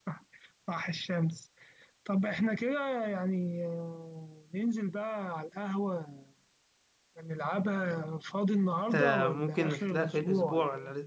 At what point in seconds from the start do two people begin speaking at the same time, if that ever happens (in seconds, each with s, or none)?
8.9 s